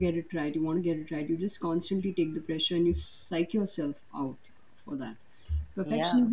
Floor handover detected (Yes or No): No